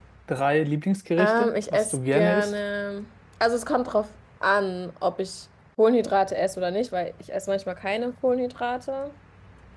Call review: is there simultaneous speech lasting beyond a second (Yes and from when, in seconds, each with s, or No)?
Yes, from 1.2 s